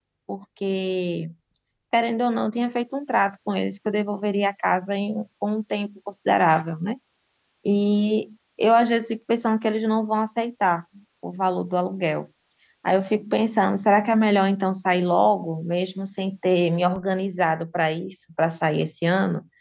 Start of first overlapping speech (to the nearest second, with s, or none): none